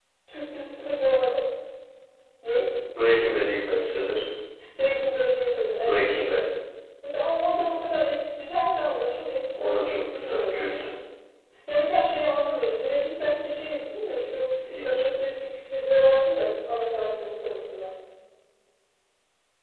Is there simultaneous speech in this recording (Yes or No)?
Yes